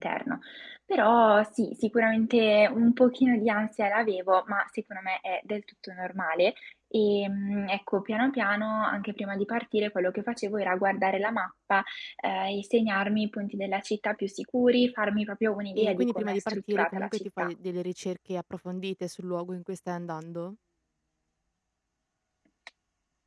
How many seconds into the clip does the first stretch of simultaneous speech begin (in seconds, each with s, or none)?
15.8 s